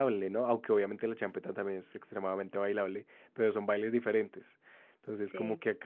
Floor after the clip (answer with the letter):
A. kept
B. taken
A